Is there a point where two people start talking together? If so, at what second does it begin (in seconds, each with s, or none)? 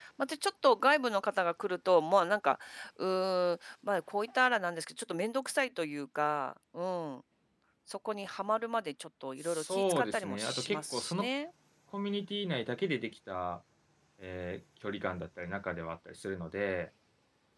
9.4 s